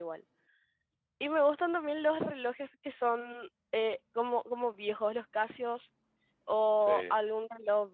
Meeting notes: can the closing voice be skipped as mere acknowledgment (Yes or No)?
Yes